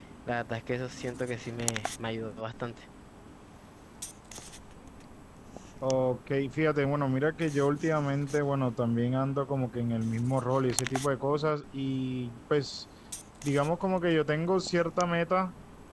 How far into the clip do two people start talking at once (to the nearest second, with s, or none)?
none